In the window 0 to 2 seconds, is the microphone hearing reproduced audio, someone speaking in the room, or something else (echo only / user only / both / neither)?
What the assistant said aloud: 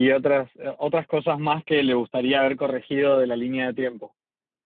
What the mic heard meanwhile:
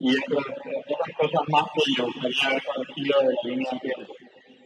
echo only